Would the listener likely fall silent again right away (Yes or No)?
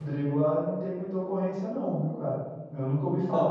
Yes